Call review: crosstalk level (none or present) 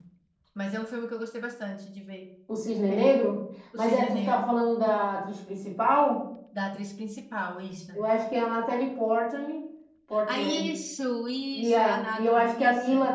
present